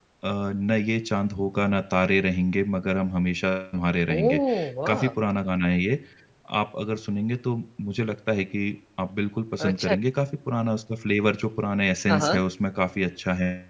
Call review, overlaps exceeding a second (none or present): none